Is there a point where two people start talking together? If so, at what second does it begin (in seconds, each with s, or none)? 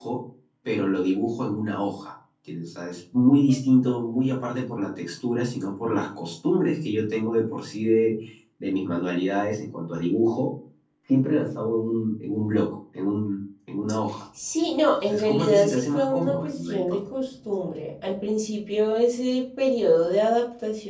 15.0 s